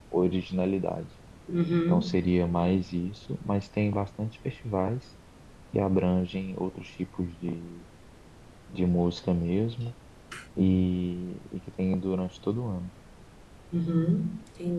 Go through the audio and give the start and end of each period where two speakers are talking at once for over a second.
none

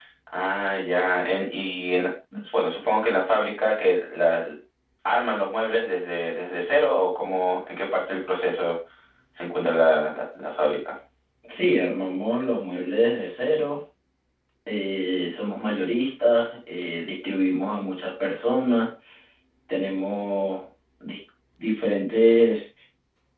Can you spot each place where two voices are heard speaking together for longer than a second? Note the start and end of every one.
none

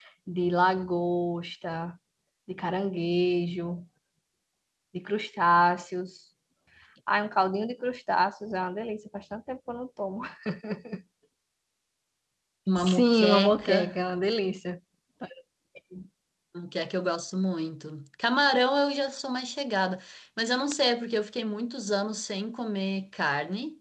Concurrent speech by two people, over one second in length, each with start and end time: 12.8-14.0

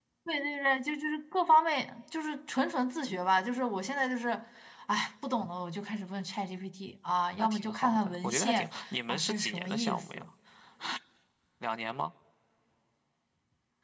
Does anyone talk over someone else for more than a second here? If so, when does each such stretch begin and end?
7.4-10.2

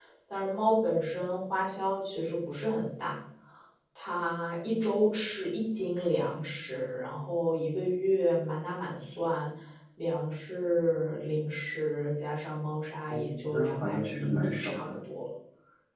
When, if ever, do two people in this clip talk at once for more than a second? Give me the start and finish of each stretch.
13.1-15.0

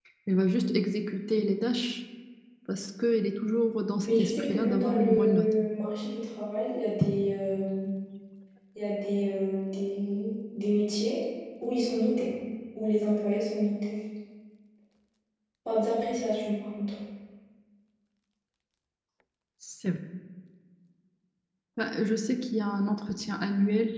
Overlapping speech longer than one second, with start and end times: 4.0-5.5

